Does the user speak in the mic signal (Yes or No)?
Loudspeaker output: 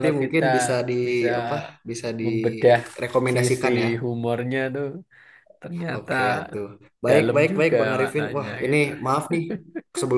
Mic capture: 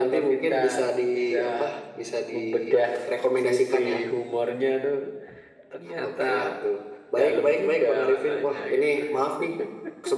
No